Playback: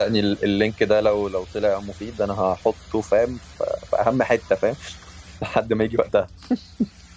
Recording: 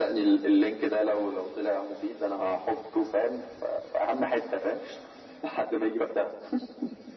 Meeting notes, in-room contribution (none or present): none